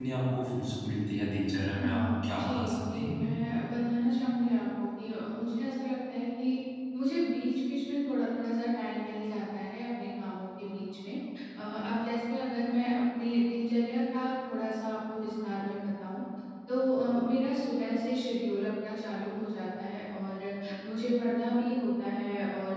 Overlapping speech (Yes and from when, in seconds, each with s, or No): Yes, from 1.8 s